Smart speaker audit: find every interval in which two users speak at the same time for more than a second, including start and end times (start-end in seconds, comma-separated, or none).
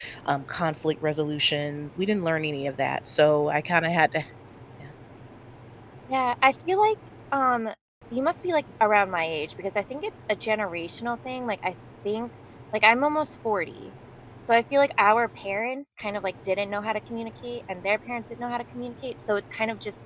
none